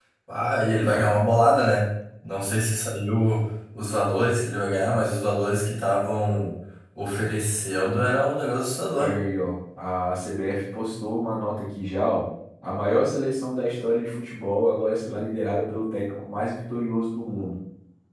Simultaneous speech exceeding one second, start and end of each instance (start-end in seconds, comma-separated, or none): none